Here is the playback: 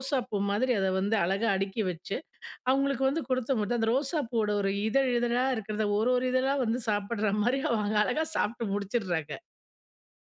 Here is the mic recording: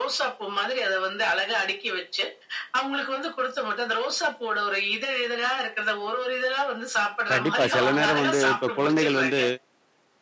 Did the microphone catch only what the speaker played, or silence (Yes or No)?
No